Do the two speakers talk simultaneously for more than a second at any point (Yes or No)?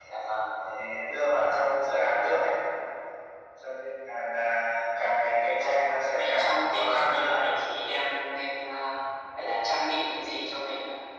Yes